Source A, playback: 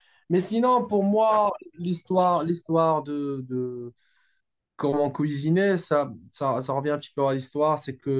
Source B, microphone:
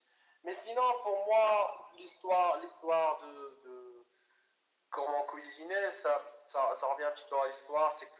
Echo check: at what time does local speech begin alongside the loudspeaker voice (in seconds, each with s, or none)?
none